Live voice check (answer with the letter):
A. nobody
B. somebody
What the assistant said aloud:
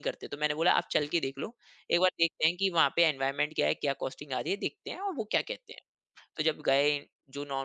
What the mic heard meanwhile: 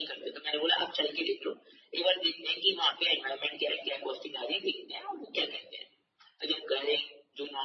A